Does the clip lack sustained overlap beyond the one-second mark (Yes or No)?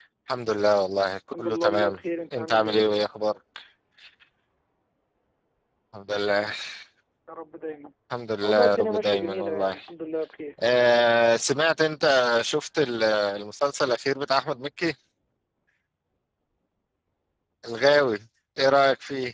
No